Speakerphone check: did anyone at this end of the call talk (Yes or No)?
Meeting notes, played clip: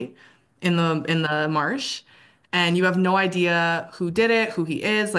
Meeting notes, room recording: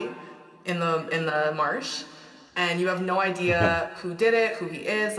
Yes